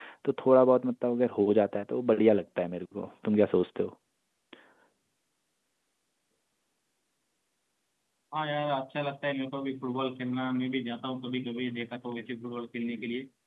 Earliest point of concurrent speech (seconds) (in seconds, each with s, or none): none